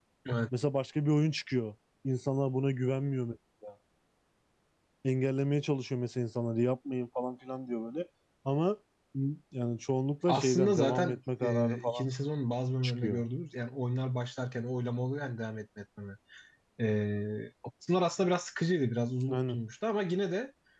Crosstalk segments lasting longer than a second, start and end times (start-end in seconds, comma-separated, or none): 10.3-12.1